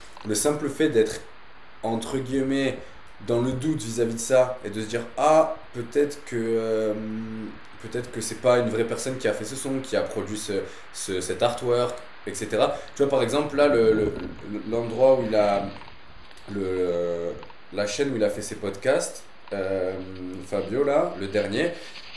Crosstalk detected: No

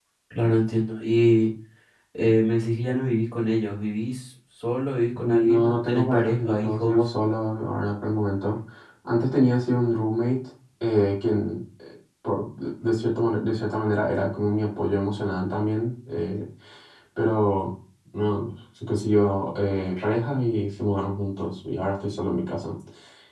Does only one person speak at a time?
No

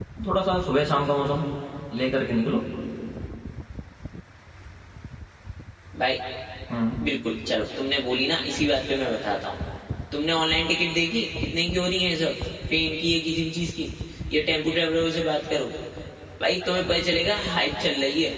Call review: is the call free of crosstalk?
Yes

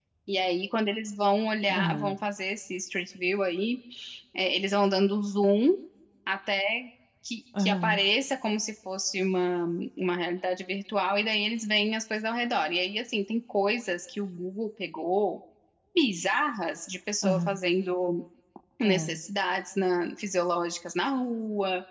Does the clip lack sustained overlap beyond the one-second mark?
Yes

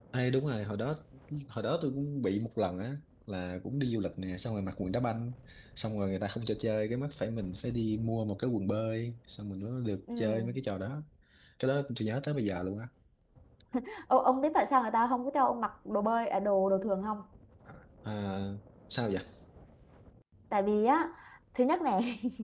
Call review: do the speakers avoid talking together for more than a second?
Yes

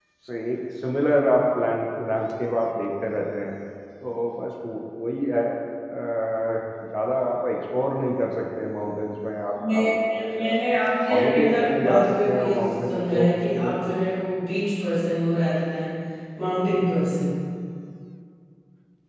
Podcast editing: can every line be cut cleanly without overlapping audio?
No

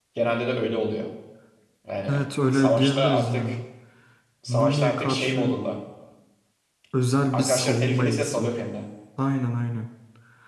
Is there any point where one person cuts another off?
Yes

